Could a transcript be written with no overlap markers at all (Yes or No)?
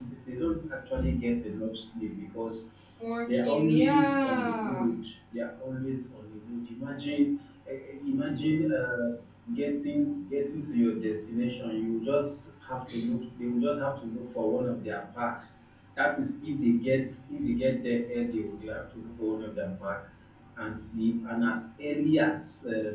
No